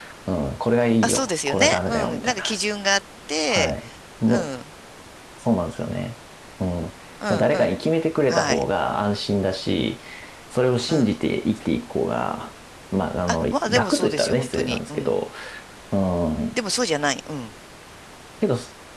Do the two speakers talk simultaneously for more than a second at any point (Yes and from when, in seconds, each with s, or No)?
Yes, from 1.0 s